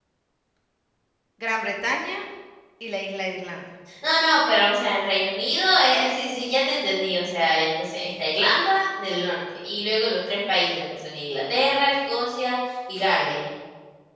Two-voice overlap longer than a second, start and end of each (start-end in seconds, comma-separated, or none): none